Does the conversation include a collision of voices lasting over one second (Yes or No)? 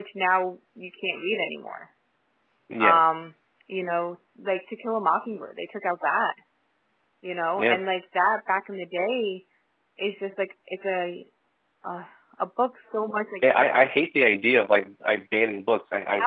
No